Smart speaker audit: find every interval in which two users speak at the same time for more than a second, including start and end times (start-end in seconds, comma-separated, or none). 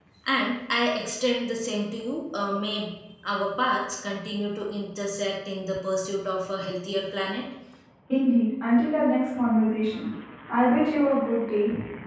none